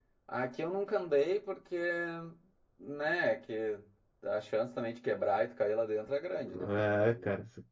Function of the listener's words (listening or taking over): taking over